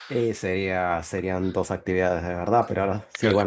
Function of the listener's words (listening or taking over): listening